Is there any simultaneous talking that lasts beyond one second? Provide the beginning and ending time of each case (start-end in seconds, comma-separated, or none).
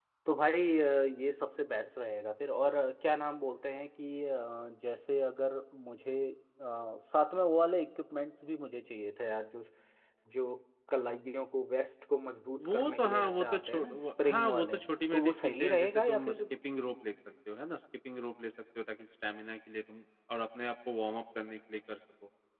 12.7-16.4